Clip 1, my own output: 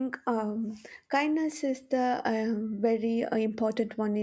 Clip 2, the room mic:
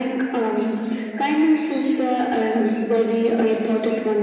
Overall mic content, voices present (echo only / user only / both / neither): echo only